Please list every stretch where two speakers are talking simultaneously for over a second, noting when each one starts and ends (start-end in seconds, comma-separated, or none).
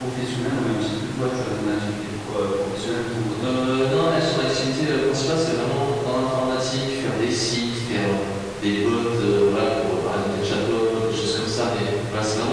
none